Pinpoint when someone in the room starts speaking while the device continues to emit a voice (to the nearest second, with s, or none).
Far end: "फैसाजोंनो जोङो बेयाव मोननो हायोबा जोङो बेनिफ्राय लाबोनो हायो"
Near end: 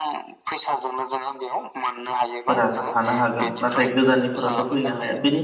3 s